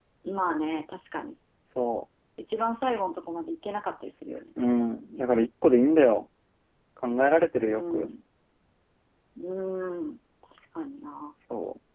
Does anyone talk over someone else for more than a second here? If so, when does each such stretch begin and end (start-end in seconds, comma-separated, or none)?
none